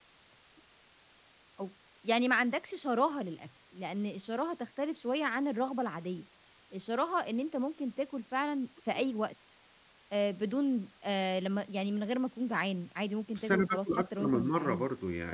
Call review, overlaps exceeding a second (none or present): present